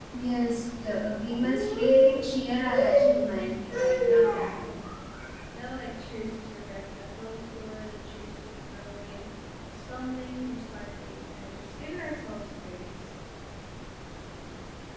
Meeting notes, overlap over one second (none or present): present